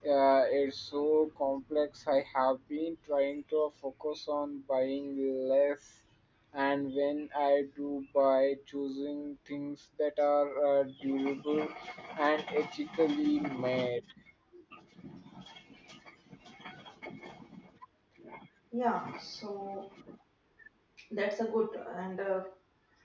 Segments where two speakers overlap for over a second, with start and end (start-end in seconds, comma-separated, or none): none